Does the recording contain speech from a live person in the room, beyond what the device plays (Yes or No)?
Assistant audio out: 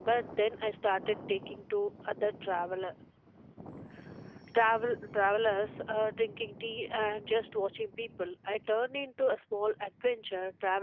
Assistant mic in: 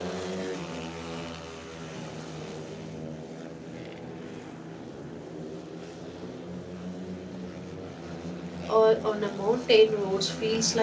Yes